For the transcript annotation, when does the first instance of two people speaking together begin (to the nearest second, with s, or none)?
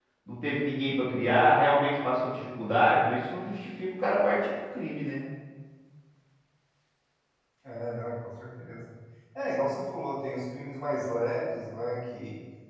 none